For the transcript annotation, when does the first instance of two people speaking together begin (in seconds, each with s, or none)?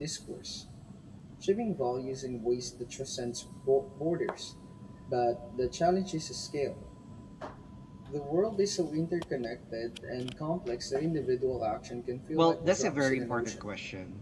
12.3 s